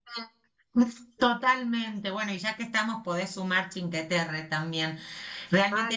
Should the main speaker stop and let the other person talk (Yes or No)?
No